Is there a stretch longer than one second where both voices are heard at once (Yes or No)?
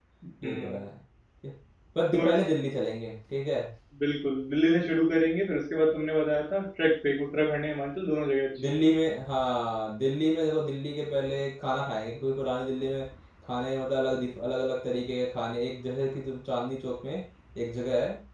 No